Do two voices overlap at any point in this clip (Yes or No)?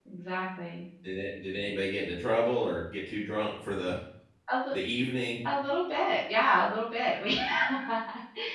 No